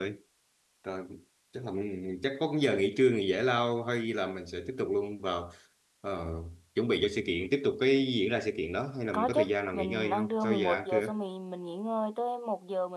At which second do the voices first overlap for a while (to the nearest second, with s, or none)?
9 s